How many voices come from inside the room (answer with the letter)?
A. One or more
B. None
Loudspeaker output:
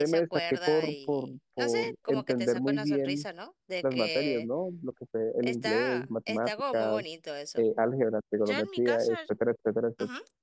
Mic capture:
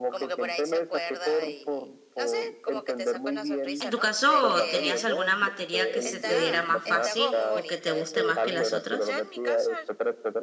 A